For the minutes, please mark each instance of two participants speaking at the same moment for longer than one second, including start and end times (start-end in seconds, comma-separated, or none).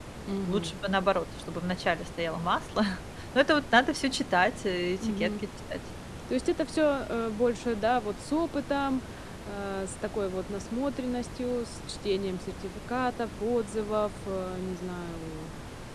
none